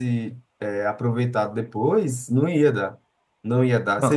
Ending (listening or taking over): listening